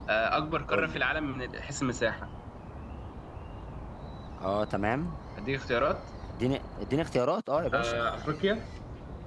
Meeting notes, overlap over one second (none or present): none